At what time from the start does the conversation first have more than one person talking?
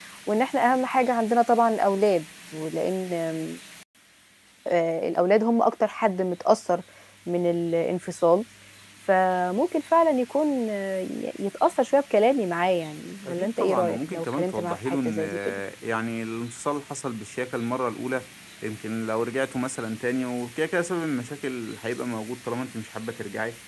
13.2 s

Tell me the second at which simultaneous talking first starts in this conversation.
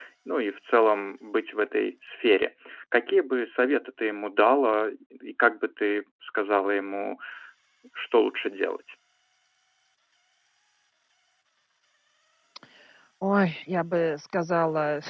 none

